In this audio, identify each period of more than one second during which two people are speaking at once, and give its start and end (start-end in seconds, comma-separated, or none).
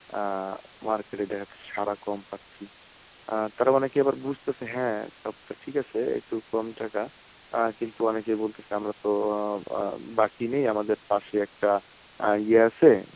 none